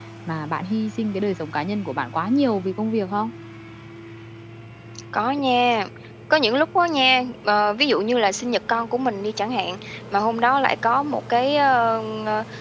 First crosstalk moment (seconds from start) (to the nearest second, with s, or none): none